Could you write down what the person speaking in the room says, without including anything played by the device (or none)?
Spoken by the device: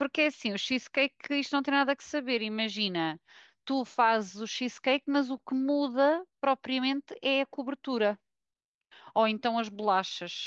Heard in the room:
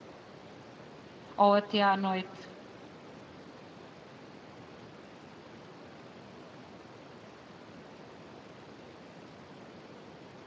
ou até à noite.